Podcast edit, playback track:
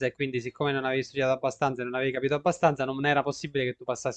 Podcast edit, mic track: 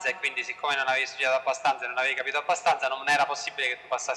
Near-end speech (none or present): none